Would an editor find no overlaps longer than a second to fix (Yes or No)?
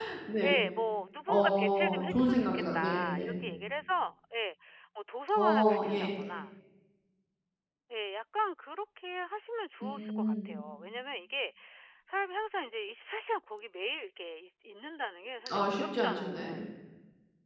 No